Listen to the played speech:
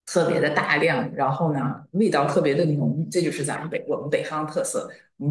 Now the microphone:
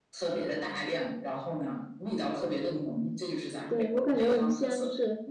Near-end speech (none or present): present